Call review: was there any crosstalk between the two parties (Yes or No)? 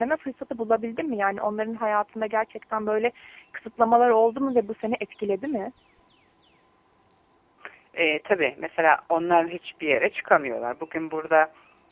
No